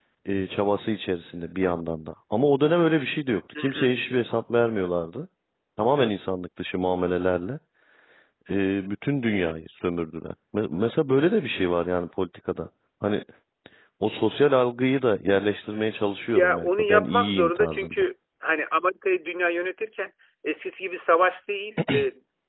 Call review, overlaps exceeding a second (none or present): present